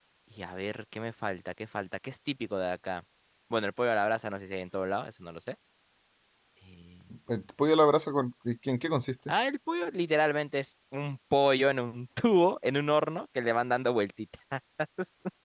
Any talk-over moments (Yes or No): No